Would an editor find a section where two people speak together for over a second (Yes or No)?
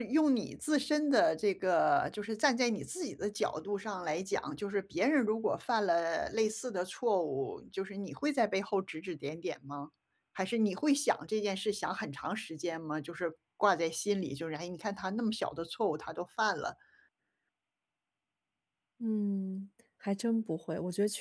No